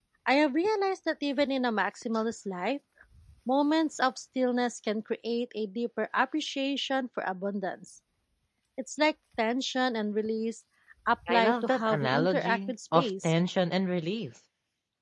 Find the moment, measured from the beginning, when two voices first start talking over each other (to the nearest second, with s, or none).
11 s